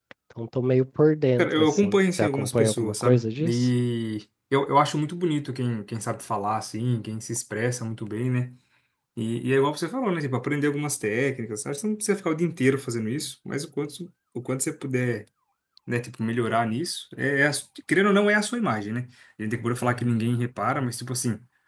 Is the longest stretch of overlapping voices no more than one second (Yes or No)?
No